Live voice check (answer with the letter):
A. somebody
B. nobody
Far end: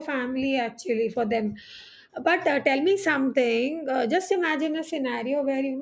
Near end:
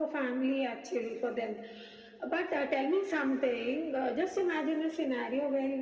B